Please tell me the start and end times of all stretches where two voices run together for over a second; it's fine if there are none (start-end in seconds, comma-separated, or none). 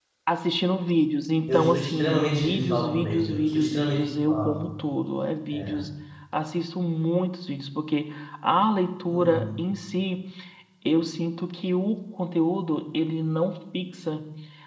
1.5-4.5